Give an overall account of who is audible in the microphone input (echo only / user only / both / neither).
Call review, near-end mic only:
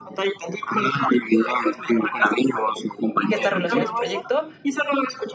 both